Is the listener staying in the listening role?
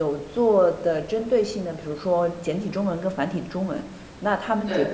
Yes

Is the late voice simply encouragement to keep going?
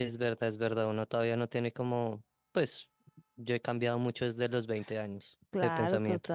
No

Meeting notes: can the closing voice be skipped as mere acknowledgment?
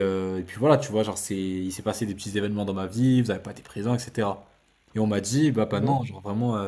Yes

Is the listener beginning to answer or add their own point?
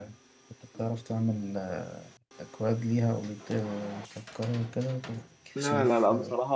Yes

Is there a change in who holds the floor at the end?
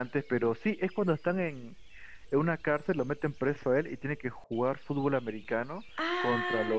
Yes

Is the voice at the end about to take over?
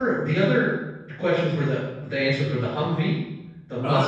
Yes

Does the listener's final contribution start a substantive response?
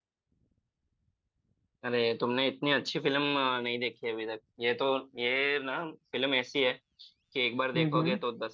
No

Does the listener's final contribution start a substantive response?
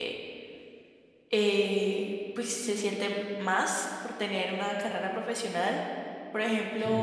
No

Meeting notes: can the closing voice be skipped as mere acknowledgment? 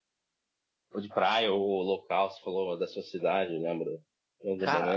No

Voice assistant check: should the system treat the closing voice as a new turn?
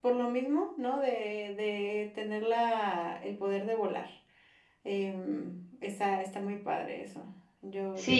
Yes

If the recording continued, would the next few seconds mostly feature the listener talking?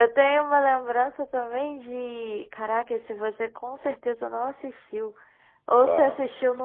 No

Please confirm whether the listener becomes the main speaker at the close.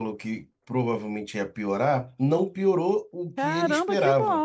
Yes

